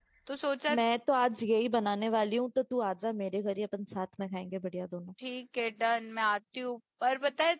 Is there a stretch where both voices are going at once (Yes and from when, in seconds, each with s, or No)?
No